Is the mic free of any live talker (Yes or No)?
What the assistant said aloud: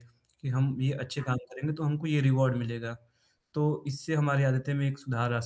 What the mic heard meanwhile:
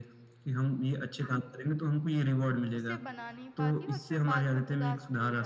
No